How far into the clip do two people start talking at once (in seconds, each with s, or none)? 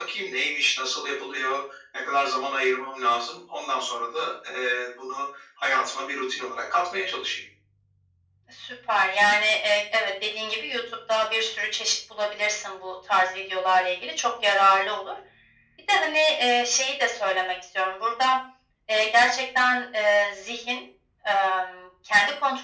none